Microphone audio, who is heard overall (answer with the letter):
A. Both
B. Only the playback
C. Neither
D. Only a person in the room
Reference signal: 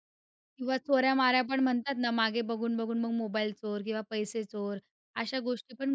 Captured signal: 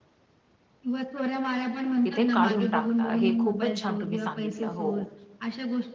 A